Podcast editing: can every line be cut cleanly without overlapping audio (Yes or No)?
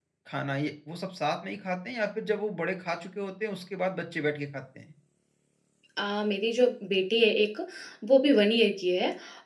Yes